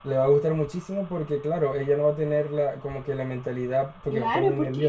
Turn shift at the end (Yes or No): Yes